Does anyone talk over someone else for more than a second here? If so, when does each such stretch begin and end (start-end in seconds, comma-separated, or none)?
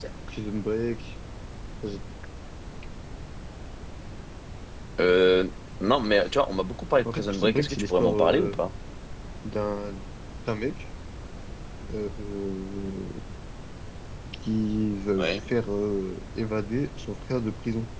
7.1-8.6